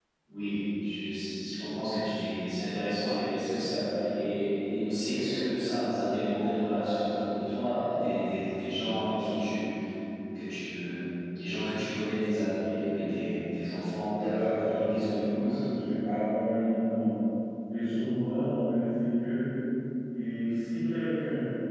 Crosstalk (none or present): present